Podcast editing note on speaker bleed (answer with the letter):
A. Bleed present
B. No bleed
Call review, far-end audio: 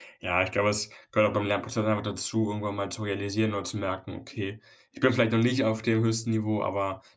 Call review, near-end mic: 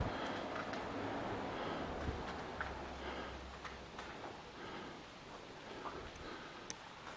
B